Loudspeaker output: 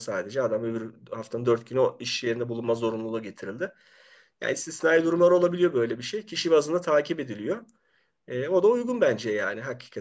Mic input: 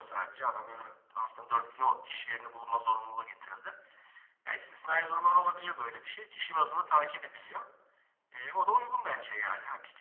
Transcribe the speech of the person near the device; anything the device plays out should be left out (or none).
none